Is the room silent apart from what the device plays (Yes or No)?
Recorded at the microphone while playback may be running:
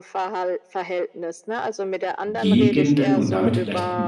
No